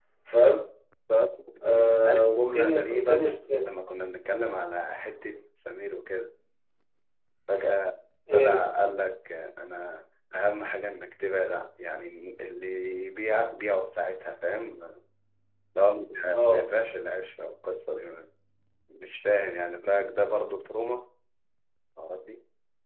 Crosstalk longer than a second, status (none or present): present